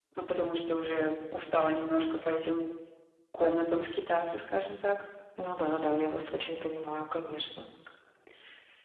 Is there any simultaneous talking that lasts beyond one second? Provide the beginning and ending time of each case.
none

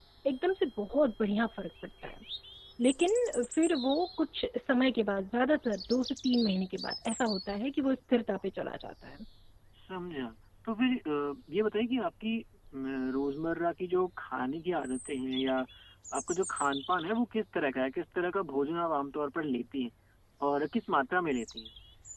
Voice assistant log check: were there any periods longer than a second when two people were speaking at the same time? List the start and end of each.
none

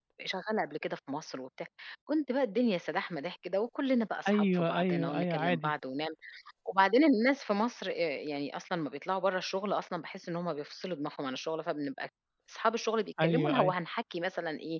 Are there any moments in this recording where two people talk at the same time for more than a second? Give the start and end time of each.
4.3-5.7

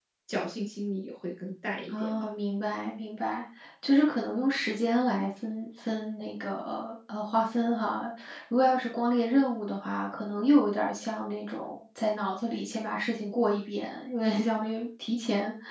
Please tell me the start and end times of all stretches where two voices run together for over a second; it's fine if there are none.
none

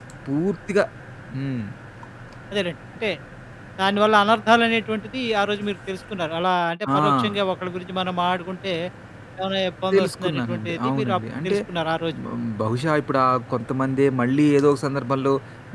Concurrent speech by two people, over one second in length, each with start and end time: 9.9-11.6

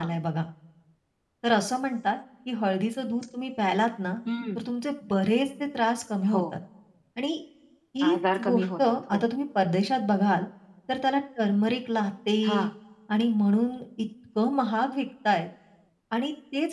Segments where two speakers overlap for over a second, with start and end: 8.1-9.3

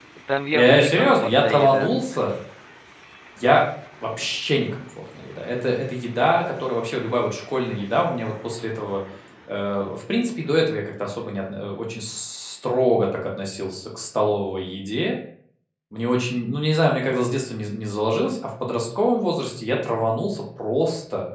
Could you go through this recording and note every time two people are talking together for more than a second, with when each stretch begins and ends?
0.5-1.9

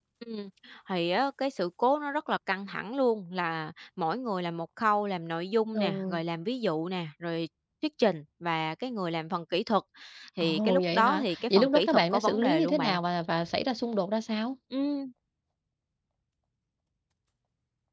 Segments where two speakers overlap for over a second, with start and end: 10.4-13.0

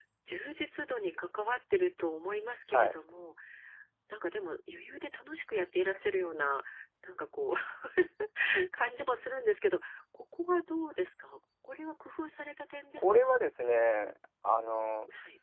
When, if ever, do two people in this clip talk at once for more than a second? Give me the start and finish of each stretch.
none

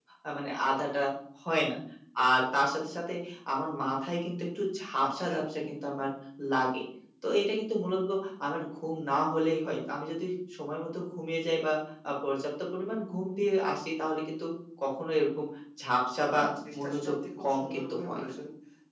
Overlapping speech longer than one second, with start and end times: 16.8-18.3

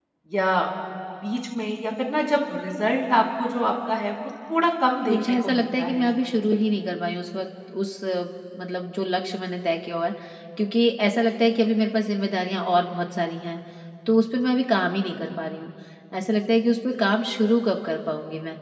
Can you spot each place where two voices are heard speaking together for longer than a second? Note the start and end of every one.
5.1-6.4

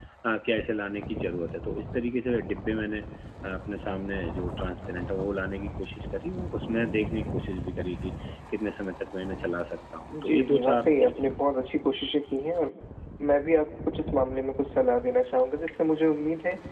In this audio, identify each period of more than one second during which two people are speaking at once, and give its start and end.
10.1-11.6

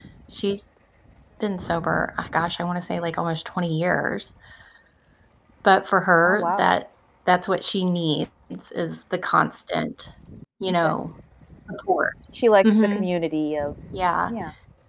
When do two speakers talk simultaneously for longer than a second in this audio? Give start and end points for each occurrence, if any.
none

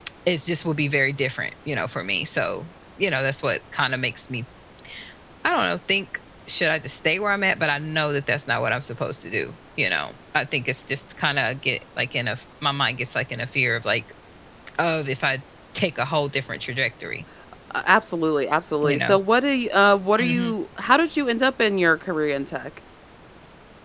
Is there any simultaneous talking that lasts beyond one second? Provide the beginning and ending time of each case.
none

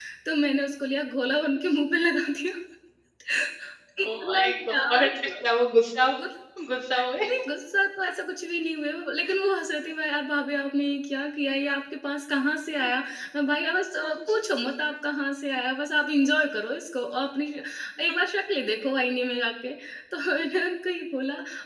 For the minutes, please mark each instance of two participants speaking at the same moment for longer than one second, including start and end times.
4.1-5.3

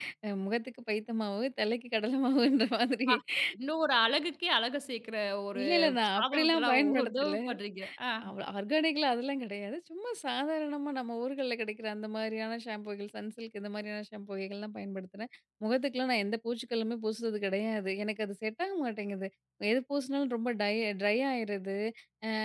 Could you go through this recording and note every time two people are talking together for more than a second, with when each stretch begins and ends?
6.2-7.4

